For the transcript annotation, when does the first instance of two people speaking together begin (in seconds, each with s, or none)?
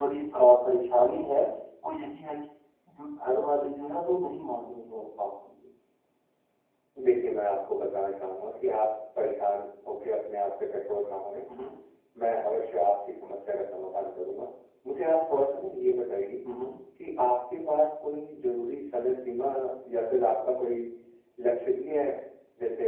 none